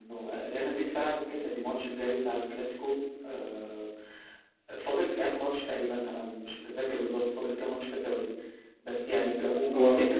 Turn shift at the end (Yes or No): No